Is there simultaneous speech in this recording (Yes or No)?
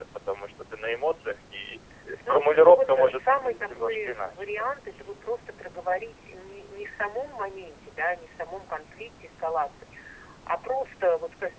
Yes